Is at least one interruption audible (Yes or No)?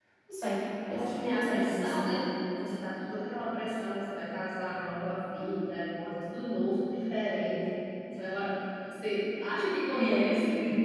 Yes